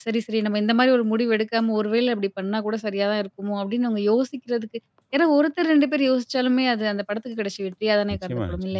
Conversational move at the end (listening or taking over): taking over